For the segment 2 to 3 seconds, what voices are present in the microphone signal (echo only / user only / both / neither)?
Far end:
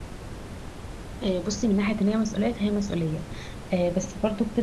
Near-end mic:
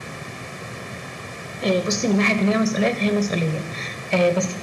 echo only